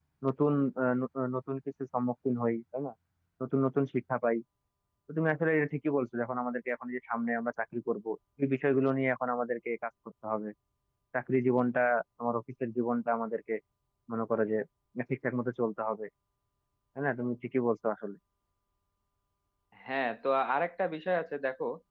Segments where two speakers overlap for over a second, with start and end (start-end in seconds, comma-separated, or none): none